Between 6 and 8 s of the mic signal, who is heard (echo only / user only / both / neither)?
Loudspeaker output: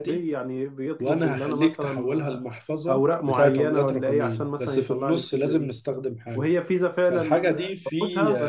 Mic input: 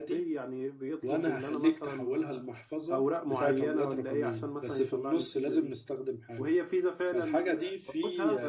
echo only